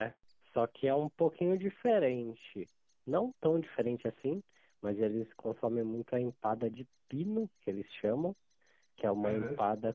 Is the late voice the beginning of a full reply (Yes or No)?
No